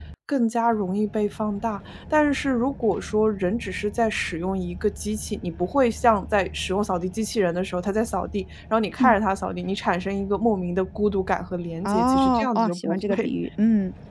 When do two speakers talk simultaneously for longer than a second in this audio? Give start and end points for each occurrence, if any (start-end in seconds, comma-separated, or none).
11.8-13.3